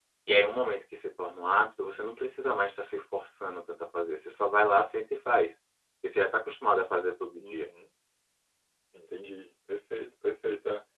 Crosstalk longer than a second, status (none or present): none